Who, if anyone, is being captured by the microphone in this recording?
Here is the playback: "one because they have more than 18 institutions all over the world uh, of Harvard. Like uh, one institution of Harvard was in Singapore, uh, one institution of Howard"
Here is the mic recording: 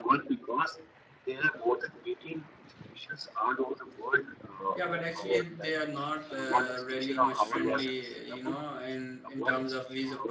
both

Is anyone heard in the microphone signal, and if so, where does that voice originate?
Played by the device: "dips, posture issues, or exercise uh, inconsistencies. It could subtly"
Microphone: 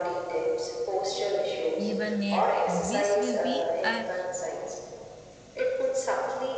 both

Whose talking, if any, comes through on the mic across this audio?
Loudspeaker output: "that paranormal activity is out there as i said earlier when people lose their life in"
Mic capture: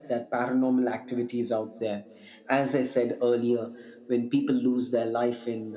echo only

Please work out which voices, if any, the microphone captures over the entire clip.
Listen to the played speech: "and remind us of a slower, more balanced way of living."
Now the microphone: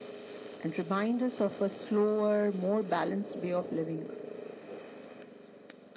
echo only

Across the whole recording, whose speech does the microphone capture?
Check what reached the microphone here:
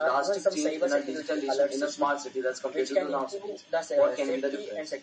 echo only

